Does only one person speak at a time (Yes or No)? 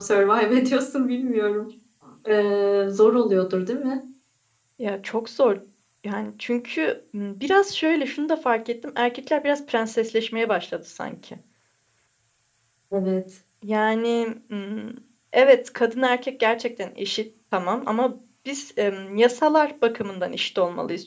Yes